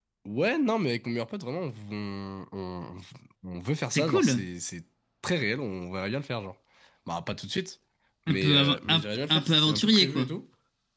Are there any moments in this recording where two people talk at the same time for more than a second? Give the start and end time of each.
8.3-10.2

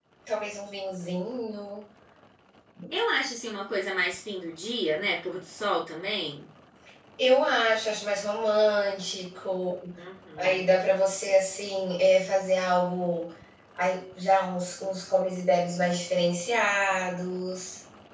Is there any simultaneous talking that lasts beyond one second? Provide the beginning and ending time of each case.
none

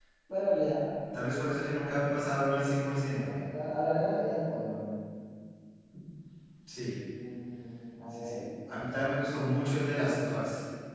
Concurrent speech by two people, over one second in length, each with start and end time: none

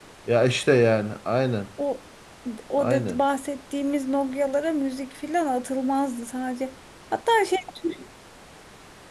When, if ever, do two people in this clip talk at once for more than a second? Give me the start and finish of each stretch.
none

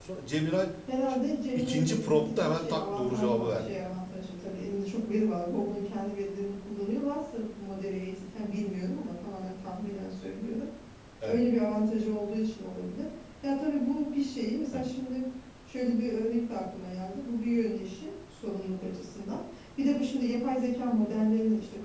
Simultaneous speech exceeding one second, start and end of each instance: 1.6-4.0

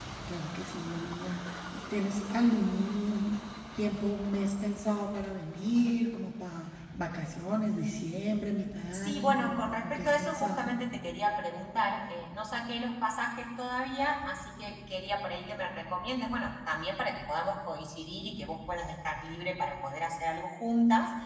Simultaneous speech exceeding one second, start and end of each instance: 8.9-10.8

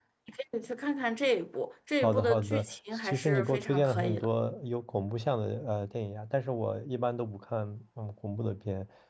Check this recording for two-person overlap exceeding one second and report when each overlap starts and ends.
2.0-4.3

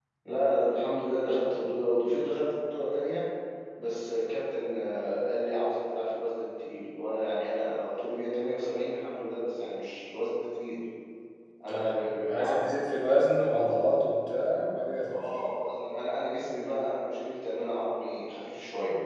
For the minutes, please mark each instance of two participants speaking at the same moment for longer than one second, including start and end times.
none

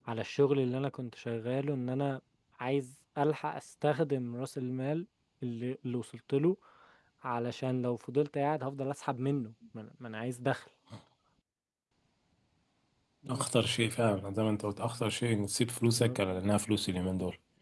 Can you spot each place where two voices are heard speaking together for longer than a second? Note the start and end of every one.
none

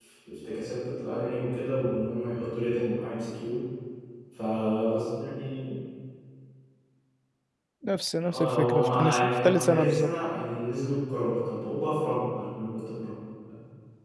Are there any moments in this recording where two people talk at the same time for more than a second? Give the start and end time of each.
8.3-10.1

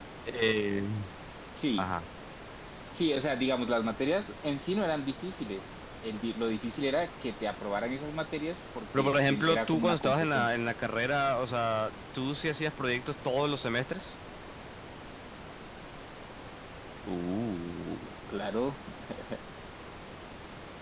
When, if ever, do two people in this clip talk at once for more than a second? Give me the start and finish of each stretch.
8.9-10.6

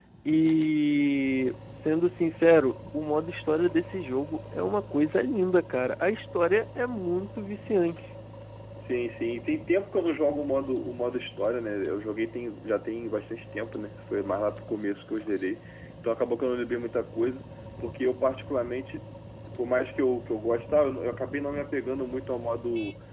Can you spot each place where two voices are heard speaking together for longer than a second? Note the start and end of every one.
none

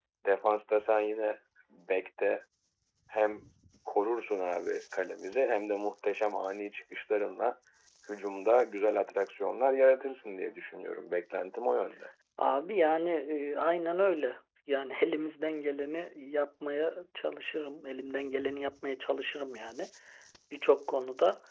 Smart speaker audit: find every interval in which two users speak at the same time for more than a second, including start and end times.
none

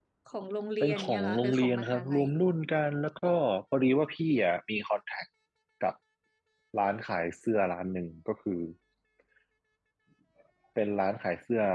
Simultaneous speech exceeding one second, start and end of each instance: 0.8-2.2

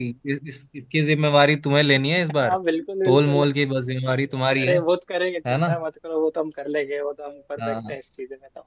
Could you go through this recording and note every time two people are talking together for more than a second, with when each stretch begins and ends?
none

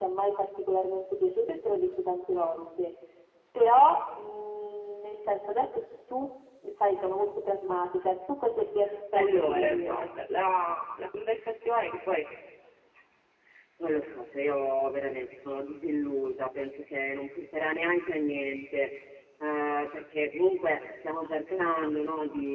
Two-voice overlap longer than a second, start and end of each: 9.1-10.5

